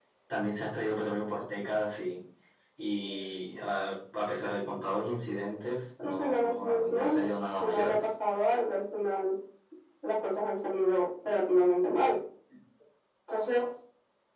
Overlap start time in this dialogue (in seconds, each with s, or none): 6.0 s